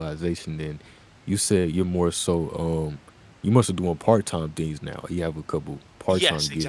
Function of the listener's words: taking over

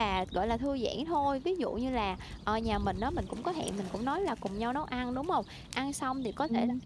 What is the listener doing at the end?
listening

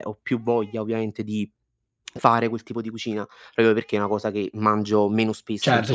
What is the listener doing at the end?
taking over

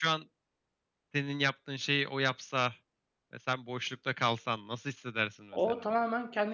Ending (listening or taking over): taking over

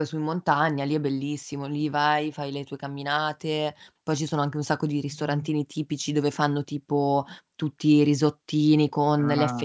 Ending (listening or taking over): listening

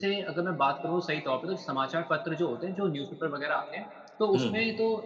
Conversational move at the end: listening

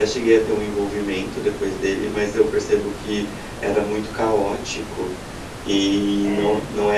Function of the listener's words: listening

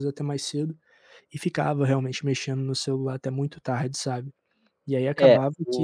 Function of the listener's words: taking over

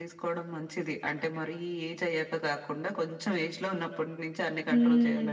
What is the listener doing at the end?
taking over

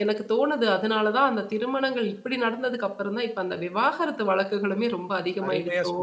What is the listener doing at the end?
taking over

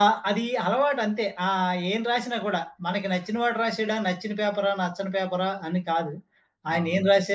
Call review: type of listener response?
listening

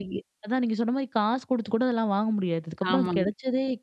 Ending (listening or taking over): listening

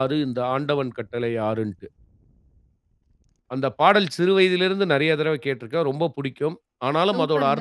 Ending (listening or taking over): listening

